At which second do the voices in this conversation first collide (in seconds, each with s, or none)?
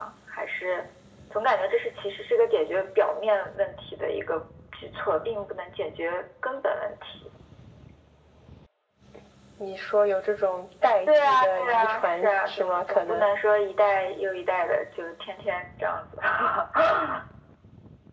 11.1 s